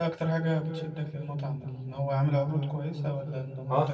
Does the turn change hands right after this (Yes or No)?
Yes